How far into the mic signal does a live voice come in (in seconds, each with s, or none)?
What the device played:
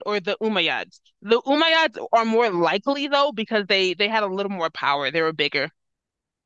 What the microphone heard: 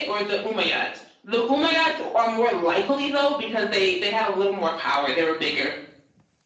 none